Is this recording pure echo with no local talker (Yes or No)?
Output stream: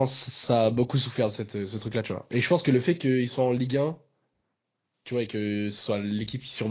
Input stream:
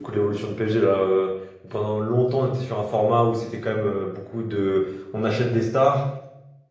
No